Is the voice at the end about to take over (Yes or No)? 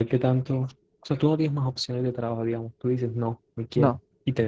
No